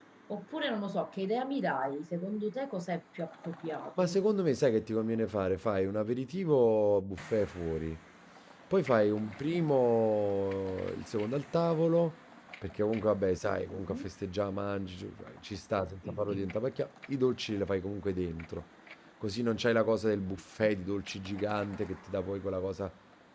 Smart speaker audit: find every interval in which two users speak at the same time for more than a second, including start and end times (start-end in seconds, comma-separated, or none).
none